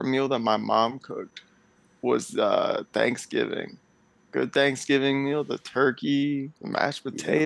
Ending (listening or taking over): listening